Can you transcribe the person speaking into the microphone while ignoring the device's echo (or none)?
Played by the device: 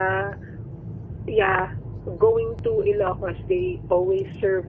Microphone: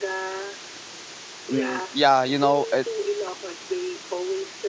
Mm, yeah, you know, it